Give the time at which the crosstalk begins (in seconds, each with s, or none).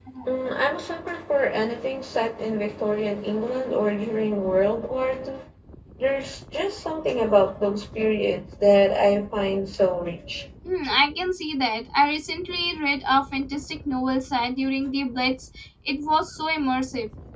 none